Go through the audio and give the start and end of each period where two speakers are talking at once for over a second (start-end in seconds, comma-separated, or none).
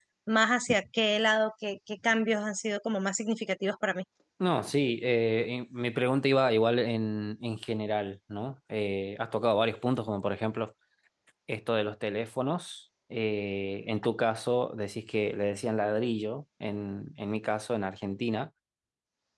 none